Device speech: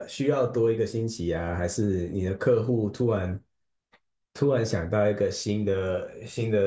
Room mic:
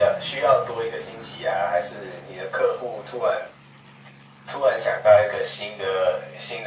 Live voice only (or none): none